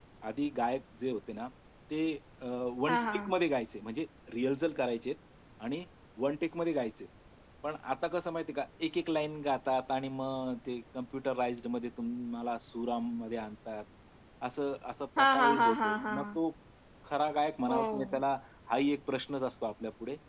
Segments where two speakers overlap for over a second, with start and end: 15.2-16.4

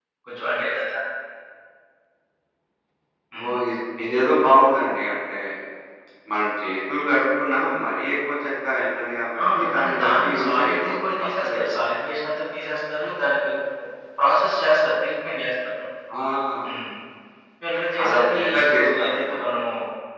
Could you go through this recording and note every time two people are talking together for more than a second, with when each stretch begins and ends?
9.6-11.8, 18.0-19.4

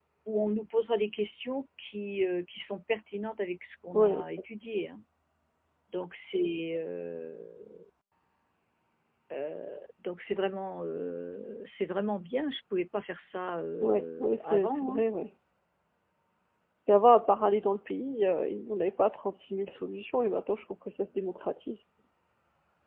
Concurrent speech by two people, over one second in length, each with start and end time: 13.8-15.0

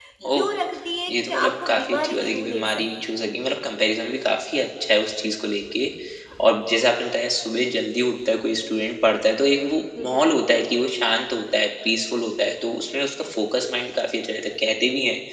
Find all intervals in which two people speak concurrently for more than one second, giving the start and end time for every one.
1.1-3.0

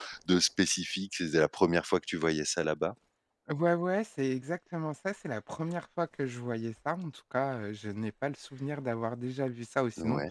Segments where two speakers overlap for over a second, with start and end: none

